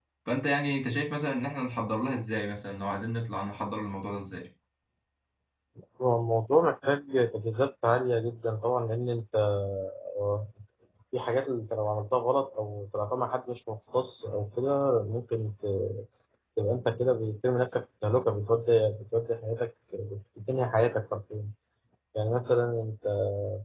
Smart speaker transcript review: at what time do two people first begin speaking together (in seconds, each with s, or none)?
none